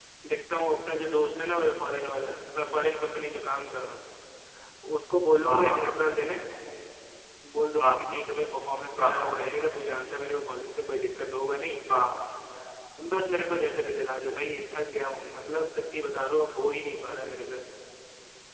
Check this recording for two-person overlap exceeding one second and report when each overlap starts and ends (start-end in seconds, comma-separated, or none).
none